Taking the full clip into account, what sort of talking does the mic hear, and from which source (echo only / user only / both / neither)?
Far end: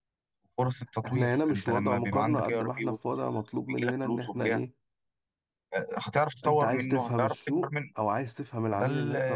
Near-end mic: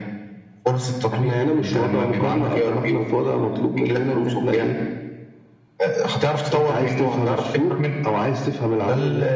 echo only